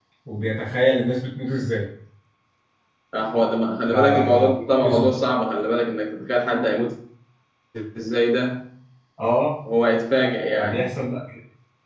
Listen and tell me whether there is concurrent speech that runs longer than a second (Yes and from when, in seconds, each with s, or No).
Yes, from 3.9 s